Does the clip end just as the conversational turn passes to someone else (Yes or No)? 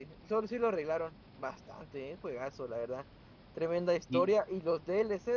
No